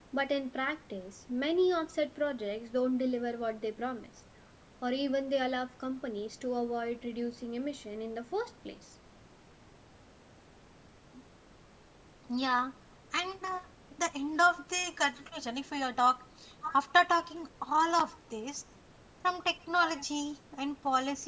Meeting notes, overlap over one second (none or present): none